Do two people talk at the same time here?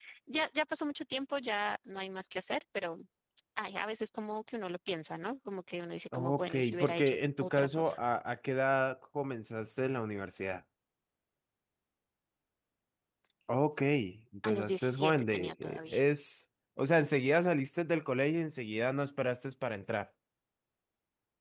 Yes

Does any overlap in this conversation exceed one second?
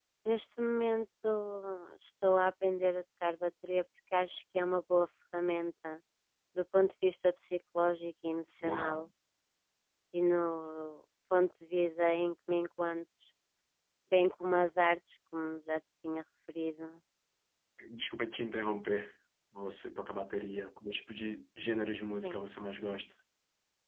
No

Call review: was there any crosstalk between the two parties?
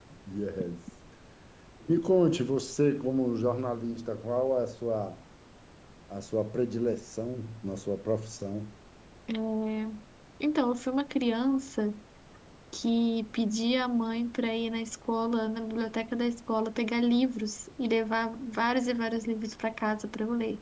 No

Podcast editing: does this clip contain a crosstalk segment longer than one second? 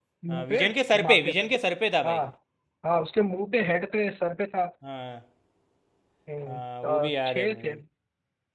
Yes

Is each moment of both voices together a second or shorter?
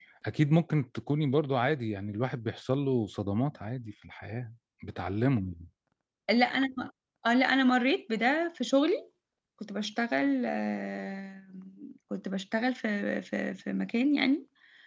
Yes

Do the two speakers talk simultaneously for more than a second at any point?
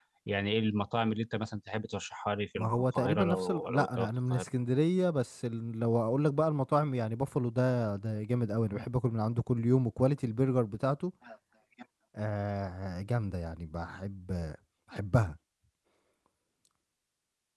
Yes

